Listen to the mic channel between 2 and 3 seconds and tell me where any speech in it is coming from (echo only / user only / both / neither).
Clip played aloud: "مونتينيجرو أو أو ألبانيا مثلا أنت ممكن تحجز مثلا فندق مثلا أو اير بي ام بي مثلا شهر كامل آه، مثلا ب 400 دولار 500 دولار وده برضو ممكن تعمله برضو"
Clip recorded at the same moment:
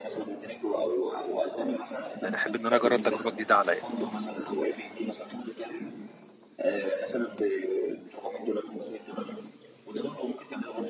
both